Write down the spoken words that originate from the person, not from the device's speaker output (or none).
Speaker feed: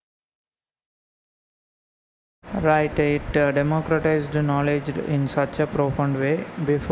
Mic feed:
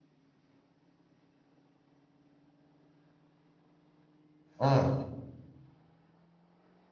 Mm.